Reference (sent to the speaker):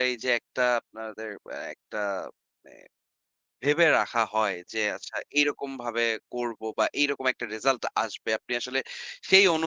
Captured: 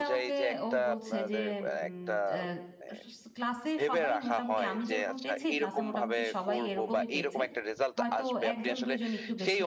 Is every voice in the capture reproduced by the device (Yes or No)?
No